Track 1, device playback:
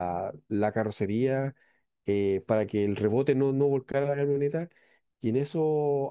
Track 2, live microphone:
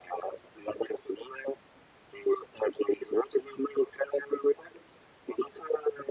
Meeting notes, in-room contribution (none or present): none